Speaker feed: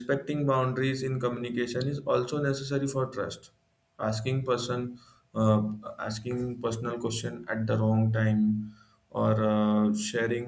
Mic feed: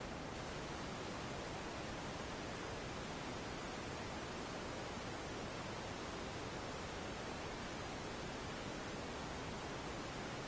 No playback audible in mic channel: Yes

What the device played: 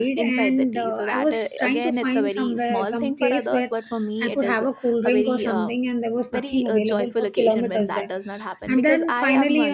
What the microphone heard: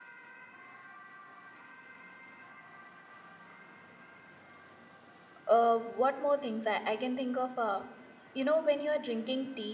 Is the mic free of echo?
Yes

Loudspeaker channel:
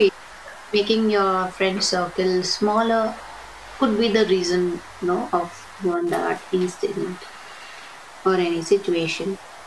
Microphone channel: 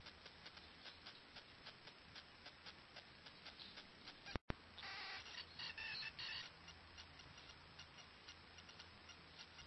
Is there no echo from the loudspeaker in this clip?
Yes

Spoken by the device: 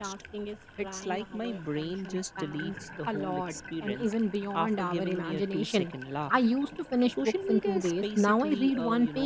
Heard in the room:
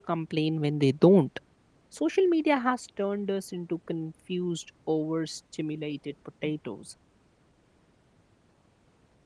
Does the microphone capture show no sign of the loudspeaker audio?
Yes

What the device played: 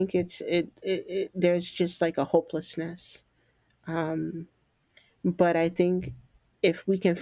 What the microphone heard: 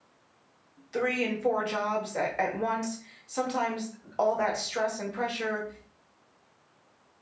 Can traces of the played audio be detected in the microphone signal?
No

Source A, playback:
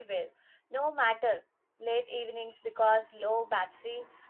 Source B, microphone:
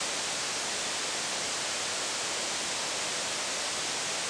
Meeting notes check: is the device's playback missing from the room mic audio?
Yes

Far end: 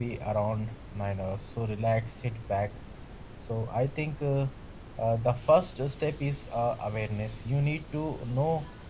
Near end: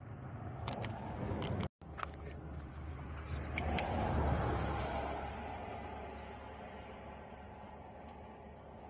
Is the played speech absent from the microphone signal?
Yes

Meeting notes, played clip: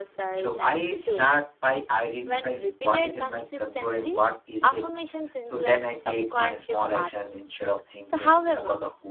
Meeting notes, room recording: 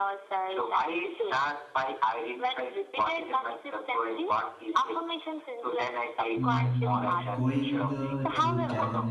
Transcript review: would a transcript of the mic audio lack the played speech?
No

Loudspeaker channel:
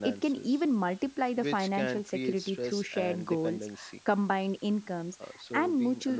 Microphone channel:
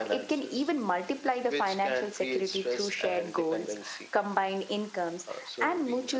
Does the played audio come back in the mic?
Yes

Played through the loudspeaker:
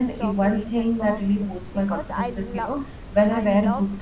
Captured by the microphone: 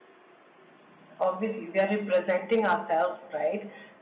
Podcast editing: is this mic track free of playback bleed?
Yes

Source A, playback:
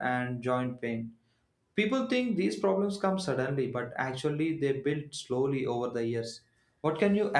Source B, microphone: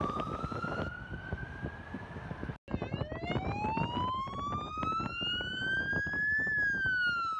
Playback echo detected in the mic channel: No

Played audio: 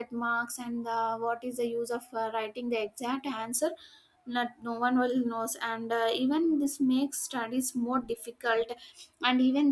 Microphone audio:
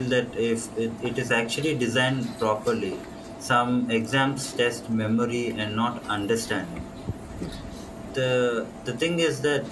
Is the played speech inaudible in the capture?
Yes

